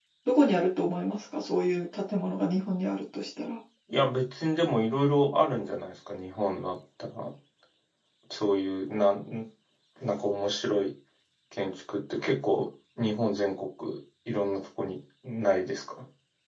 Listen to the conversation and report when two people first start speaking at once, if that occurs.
none

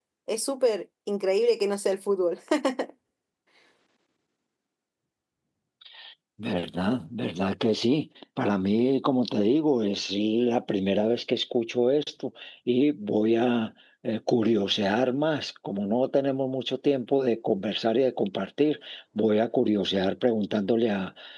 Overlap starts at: none

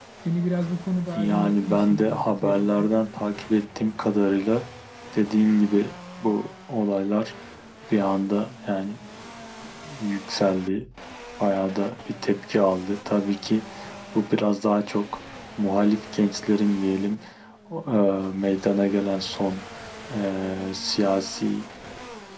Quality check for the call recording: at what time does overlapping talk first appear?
1.2 s

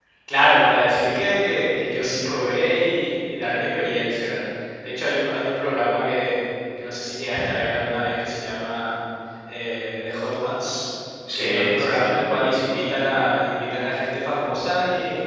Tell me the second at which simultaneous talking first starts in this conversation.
11.3 s

